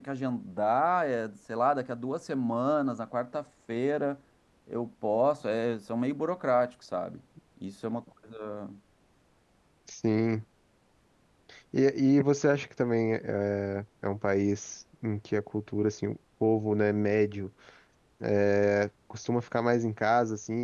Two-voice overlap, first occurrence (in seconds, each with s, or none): none